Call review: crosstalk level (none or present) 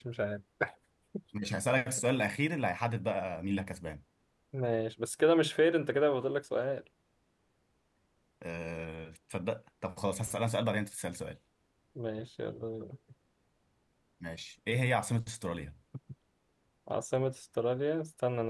none